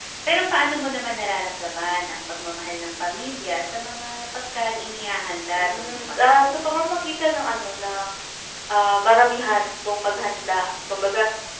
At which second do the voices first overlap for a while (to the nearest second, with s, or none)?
6 s